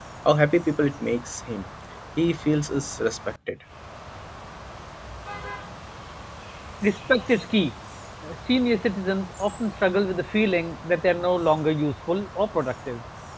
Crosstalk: none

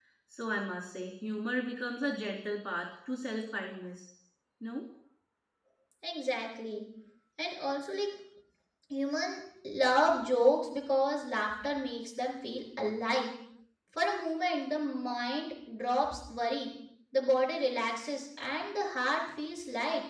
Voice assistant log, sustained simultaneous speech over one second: none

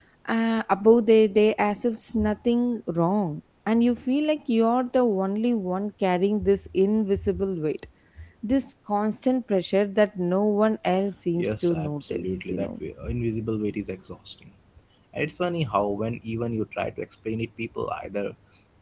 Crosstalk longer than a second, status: present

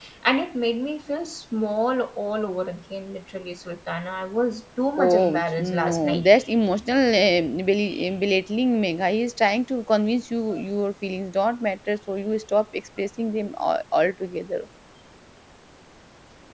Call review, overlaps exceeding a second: present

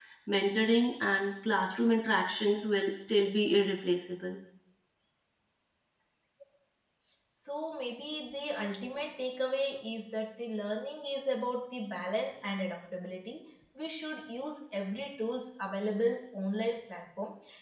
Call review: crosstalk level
none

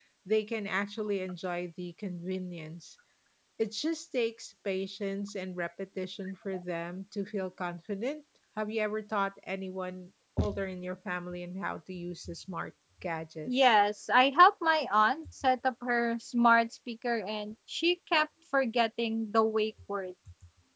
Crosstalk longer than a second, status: none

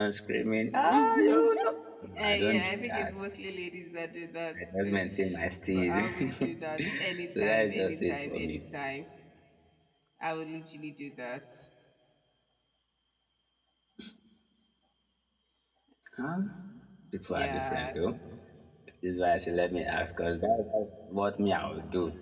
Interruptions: present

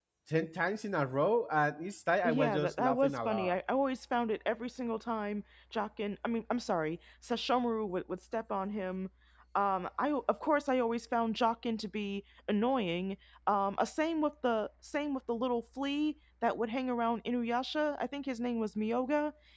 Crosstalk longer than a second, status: present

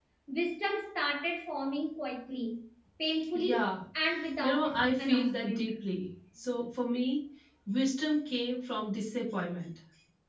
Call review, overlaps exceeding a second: present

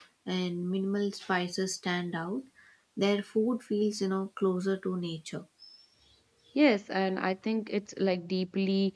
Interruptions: none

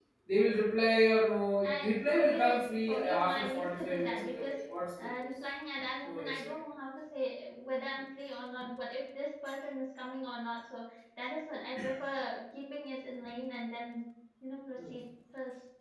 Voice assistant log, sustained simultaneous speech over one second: present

